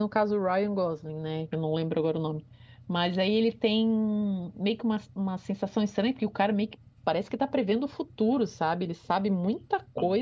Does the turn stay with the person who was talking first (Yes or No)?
Yes